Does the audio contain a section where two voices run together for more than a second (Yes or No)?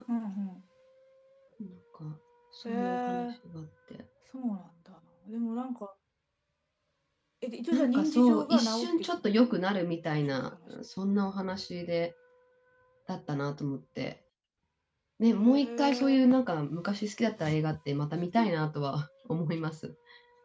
Yes